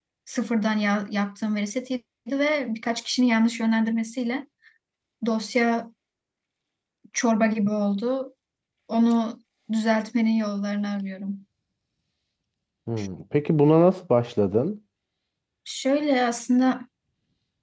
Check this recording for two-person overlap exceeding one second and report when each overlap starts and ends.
none

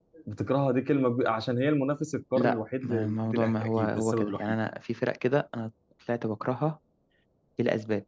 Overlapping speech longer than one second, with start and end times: 2.4-4.5

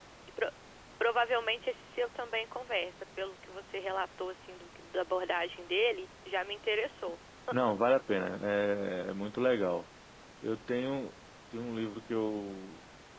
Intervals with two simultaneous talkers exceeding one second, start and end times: none

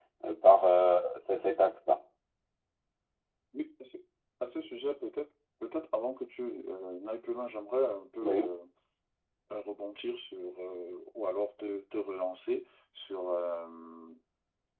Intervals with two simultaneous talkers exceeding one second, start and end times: none

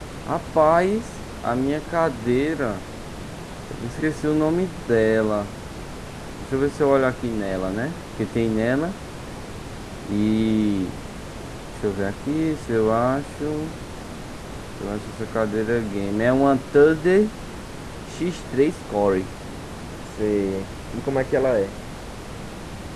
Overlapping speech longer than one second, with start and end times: none

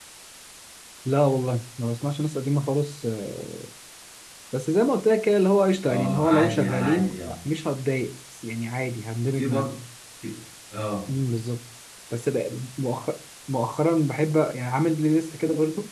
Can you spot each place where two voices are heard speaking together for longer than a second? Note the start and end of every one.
5.8-7.3

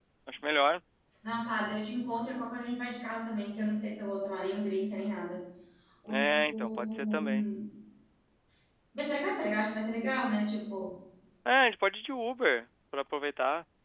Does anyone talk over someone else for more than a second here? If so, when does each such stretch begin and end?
6.1-7.4

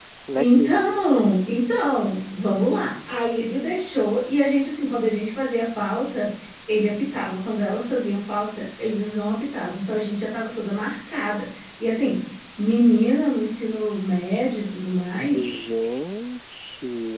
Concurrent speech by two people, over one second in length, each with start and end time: none

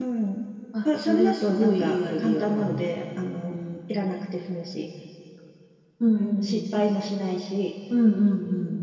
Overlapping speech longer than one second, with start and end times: 1.0-2.8

